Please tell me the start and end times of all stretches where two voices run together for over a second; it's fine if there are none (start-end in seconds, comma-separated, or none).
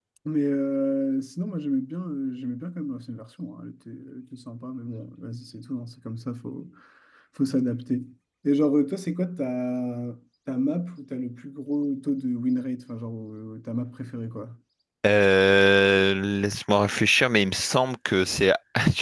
none